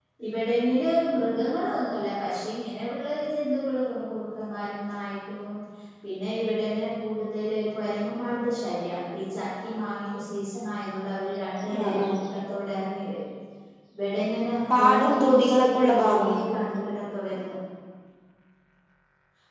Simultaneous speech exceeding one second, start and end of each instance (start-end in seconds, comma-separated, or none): 14.8-16.4